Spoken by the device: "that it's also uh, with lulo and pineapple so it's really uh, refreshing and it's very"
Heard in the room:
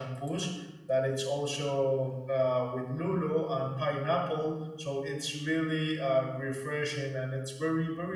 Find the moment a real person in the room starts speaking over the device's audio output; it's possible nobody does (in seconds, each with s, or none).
none